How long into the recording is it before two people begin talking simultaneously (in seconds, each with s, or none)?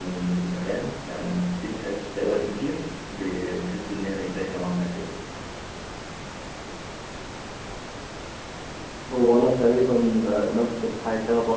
none